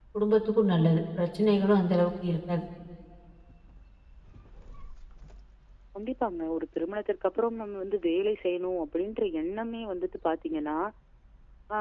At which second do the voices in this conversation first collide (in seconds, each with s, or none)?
none